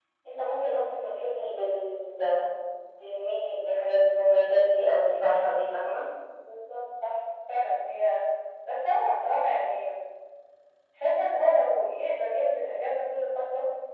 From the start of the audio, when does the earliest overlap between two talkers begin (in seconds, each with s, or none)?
none